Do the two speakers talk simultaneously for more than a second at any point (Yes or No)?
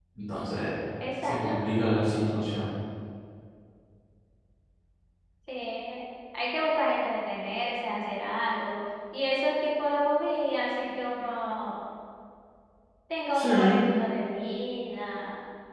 No